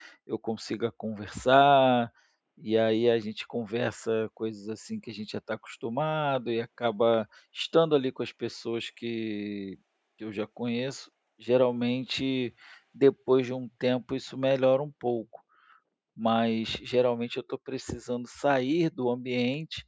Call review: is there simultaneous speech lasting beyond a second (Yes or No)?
No